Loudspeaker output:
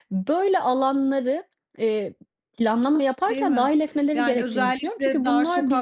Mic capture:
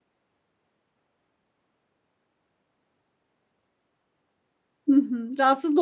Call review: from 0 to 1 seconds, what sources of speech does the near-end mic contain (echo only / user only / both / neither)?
neither